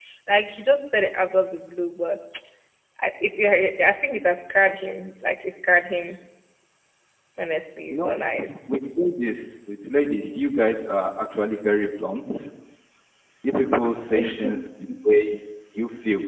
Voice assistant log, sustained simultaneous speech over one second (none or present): none